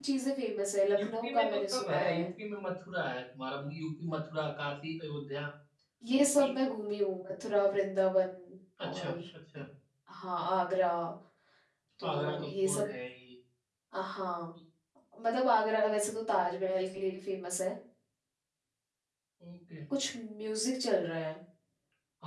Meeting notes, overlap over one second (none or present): present